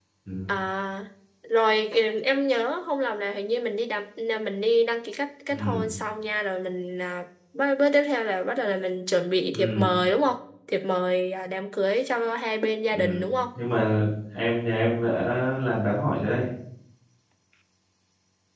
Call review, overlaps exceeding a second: none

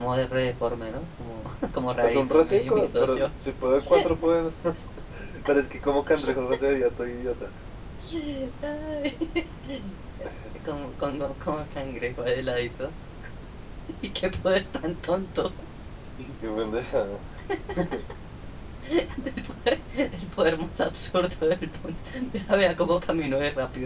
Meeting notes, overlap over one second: present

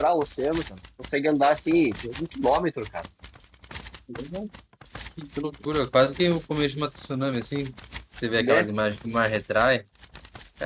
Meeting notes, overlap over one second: none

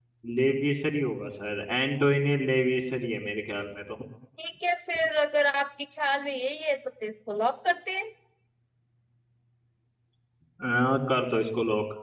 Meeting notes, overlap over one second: none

